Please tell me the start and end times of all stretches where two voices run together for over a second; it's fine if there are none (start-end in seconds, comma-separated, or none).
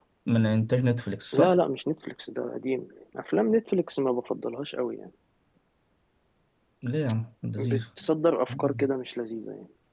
none